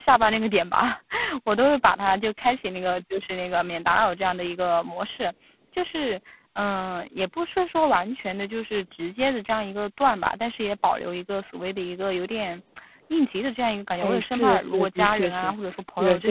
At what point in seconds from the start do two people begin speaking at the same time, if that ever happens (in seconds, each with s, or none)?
13.9 s